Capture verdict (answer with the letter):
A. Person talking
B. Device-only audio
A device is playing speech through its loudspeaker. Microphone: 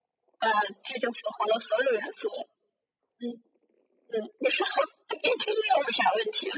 B